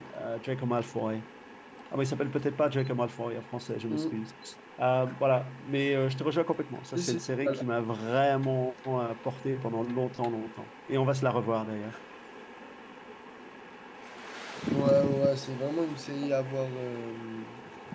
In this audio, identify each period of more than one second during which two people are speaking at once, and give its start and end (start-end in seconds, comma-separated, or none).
none